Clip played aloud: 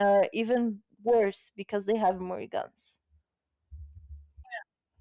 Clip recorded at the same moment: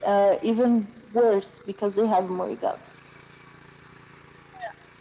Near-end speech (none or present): none